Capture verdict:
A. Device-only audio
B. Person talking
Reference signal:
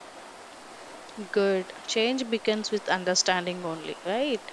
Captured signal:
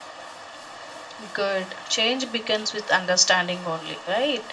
A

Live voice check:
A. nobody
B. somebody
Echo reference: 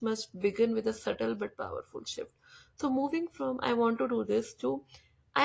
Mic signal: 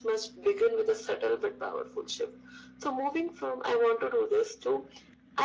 A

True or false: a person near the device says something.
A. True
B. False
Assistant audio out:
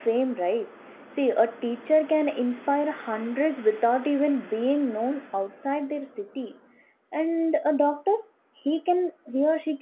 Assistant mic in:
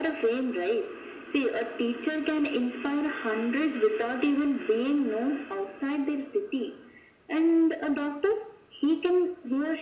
B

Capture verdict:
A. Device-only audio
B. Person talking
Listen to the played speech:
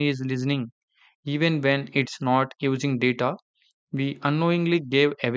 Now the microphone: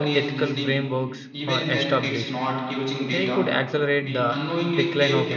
B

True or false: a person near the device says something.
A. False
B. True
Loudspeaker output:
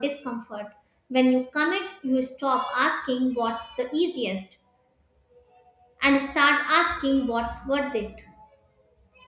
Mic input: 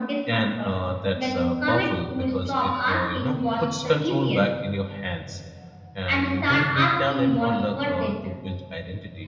B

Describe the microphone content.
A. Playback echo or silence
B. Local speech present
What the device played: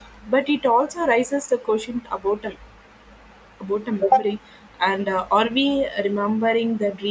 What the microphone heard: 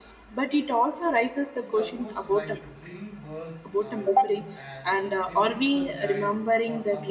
B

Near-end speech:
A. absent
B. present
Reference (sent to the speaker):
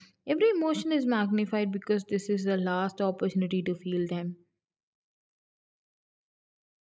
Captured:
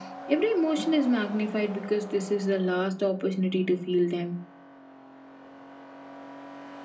A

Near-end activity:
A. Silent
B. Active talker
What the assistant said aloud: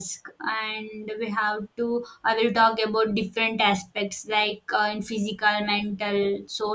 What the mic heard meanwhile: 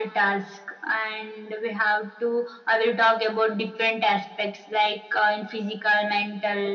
A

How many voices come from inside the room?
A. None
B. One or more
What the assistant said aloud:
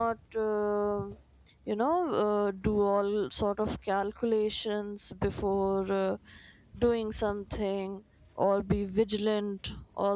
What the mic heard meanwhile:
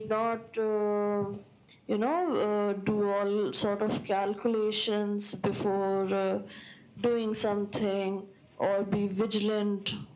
A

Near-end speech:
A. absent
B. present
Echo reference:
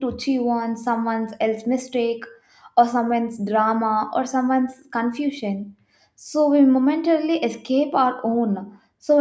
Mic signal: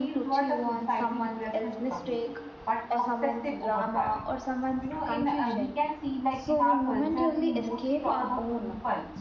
B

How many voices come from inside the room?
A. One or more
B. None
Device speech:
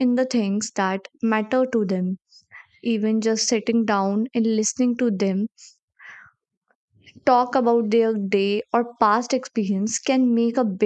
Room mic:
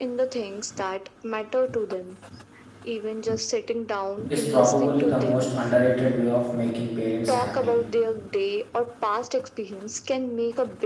A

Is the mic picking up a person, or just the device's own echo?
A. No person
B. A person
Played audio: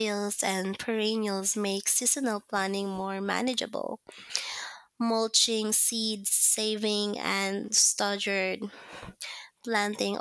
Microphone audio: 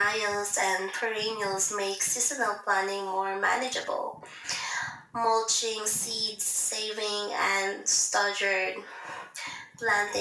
A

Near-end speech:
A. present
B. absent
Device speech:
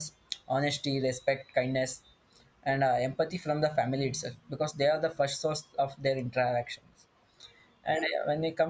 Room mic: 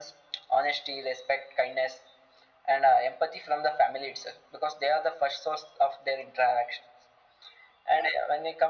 B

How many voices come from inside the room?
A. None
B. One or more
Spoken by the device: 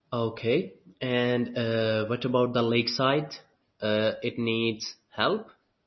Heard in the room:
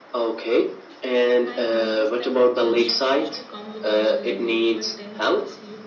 B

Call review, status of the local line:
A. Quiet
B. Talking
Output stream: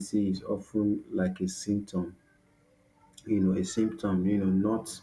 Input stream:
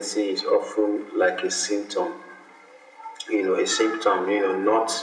A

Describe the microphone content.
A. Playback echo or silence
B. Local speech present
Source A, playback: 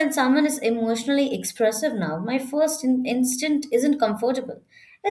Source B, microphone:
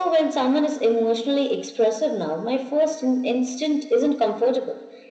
A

